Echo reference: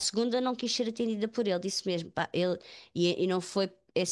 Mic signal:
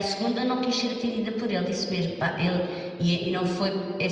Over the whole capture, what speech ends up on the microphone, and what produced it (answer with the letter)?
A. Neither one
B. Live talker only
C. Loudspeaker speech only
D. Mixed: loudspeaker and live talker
C